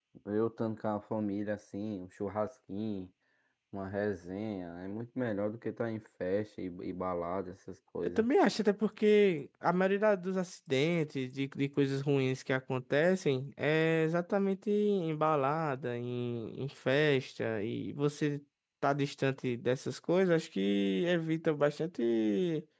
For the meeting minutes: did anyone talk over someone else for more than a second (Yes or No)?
No